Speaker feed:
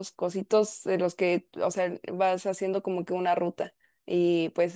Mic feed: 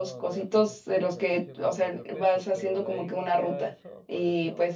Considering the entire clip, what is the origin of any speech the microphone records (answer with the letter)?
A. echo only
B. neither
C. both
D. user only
C